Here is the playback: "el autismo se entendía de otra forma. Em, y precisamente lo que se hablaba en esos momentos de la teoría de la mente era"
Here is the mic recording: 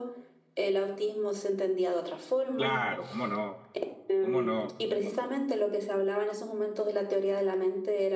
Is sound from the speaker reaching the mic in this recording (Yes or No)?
Yes